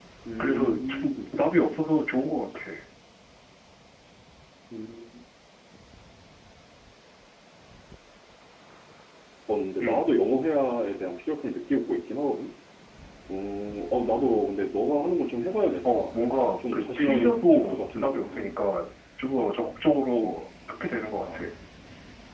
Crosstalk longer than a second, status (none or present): present